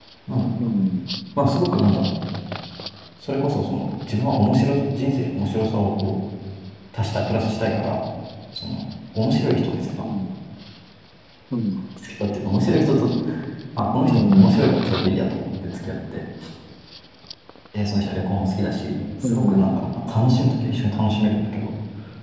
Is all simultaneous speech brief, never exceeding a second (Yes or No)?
Yes